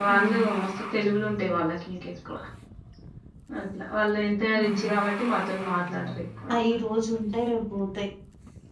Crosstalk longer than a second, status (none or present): none